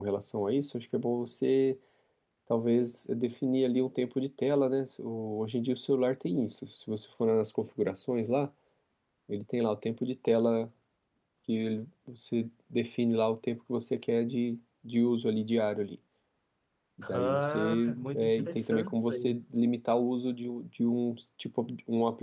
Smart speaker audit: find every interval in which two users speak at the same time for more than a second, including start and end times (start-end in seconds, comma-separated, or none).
17.1-19.4